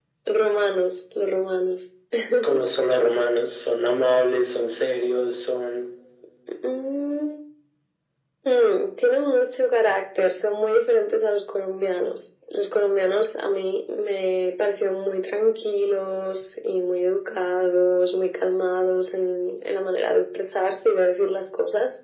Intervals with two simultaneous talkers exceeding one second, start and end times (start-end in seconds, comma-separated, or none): none